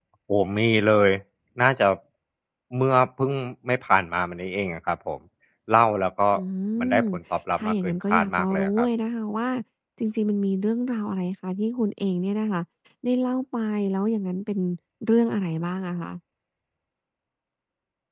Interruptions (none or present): present